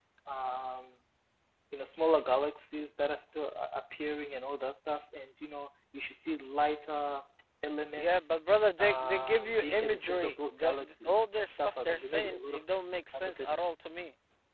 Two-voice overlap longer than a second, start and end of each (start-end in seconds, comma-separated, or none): 8.8-12.6